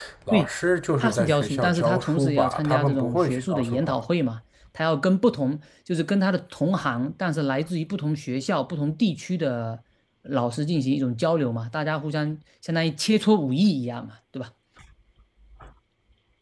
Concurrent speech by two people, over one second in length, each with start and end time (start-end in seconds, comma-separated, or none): 1.0-4.0